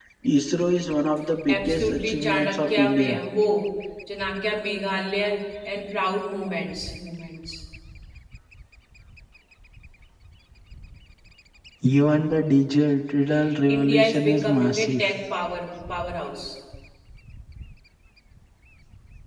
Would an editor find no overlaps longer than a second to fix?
No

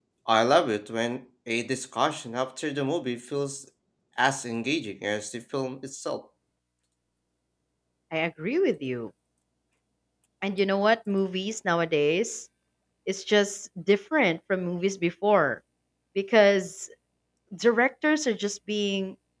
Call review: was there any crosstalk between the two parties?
No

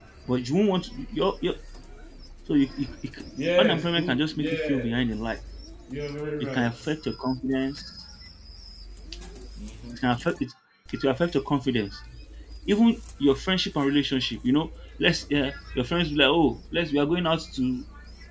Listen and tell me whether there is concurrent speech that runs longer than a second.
Yes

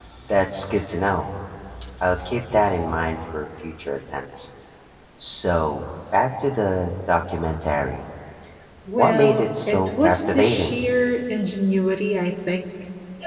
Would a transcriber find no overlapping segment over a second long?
No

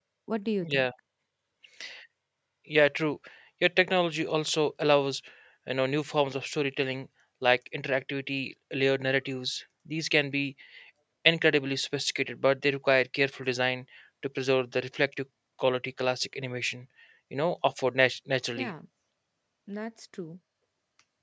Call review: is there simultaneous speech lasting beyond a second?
No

